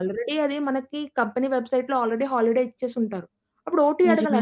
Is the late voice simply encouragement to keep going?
Yes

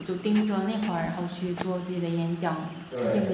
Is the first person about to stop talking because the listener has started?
Yes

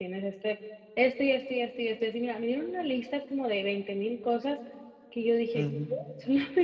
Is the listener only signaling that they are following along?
Yes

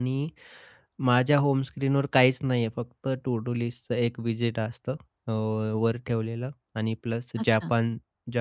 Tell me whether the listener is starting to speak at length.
No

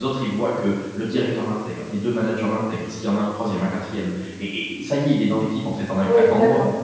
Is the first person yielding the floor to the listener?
Yes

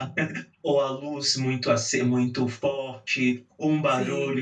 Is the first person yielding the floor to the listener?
No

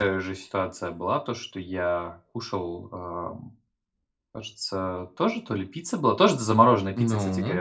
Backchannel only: Yes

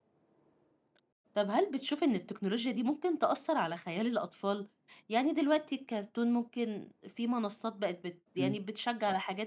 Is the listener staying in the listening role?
Yes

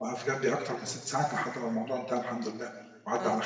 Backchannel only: No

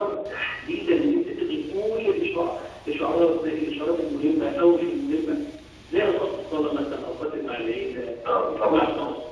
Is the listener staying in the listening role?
Yes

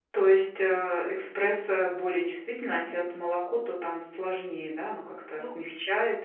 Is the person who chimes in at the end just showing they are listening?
Yes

